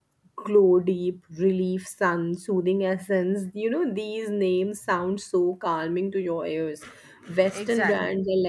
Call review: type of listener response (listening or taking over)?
listening